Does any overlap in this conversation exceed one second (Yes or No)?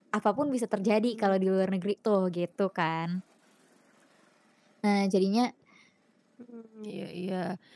No